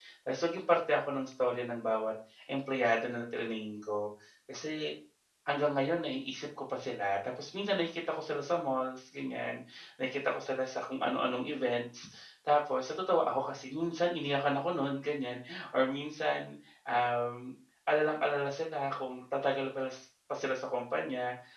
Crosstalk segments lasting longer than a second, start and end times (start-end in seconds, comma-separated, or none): none